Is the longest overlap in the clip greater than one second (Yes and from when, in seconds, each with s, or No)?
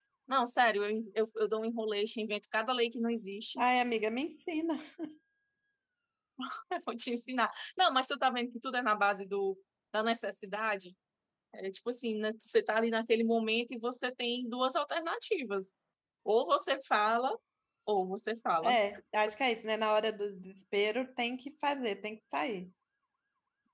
No